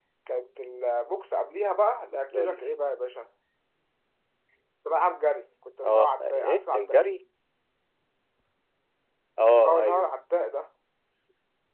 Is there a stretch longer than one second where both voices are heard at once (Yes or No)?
Yes